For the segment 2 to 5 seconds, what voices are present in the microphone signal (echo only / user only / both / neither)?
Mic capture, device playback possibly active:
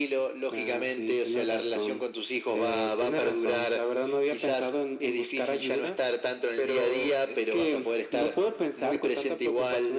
echo only